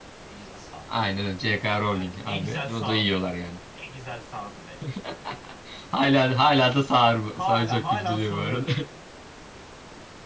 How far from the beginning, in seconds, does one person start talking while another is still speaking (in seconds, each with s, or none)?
1.9 s